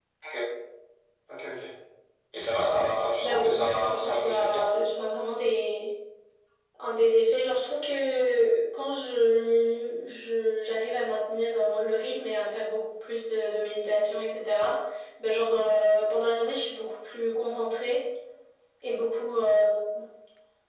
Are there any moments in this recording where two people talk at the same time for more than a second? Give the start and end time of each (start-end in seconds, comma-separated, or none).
3.2-4.7